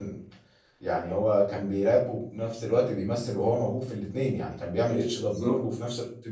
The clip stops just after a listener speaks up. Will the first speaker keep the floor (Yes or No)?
Yes